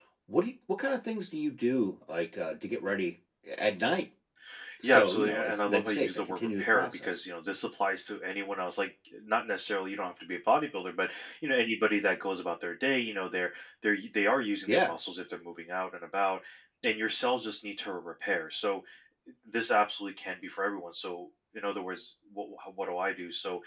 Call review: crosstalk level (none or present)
present